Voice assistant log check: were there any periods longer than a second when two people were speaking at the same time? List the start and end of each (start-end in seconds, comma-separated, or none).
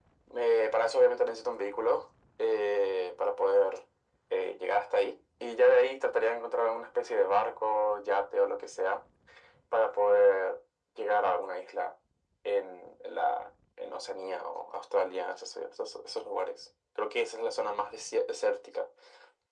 none